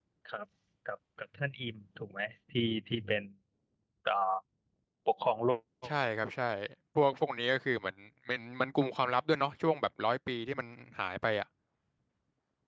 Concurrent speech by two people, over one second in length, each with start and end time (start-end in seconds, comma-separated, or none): none